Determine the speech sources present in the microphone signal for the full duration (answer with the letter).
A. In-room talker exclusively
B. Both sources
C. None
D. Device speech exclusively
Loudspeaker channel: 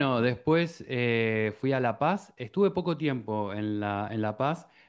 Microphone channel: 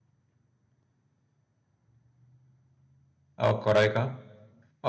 A